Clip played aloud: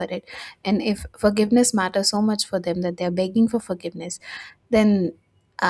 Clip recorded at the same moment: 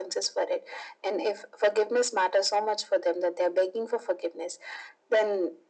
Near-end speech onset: none

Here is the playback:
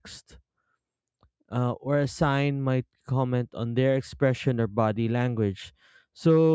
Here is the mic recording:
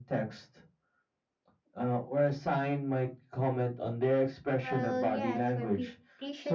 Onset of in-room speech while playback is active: 4.6 s

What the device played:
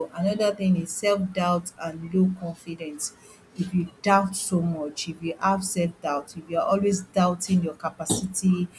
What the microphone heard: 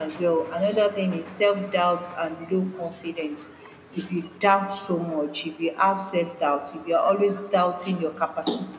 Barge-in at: none

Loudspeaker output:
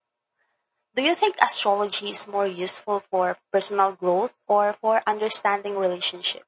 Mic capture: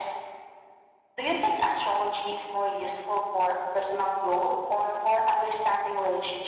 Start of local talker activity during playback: none

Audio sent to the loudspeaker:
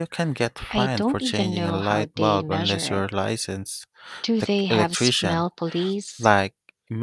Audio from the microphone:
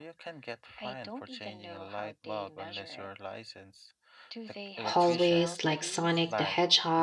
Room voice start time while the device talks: 4.8 s

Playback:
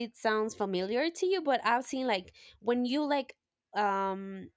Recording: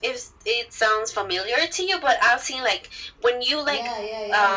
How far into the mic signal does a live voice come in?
3.6 s

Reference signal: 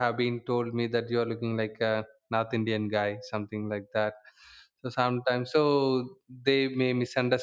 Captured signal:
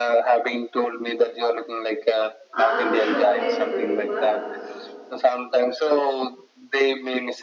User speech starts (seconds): 2.6 s

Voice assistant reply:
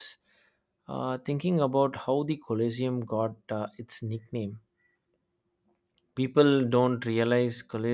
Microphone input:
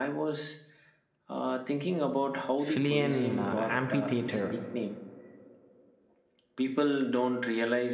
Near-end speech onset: 2.6 s

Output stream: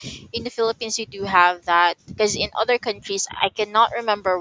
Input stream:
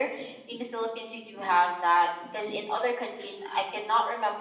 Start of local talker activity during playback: none

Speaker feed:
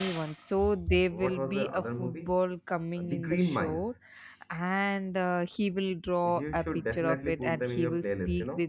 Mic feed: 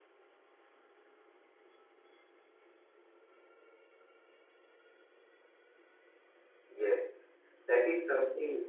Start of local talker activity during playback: 6.7 s

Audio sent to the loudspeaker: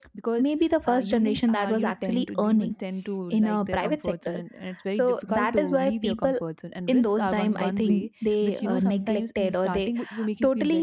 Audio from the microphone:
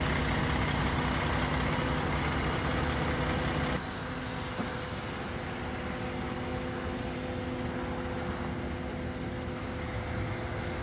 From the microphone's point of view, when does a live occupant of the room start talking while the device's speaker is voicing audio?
none

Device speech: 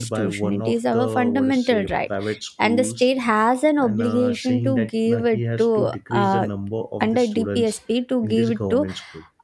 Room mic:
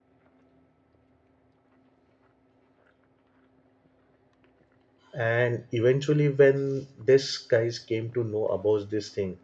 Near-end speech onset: 5.1 s

